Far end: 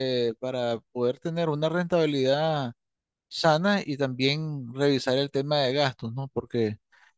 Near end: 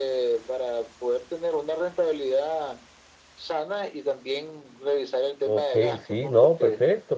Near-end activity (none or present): present